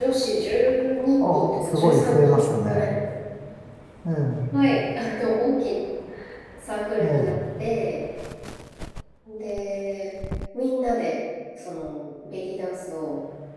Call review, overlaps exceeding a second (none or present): present